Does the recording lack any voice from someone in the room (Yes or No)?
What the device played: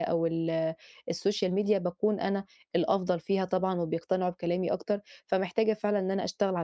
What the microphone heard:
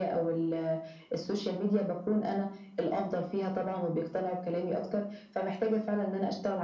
Yes